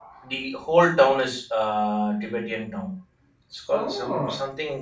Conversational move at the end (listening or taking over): listening